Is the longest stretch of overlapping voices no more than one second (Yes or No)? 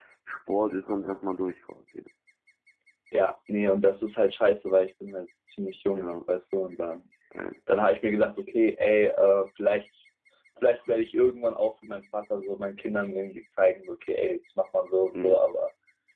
Yes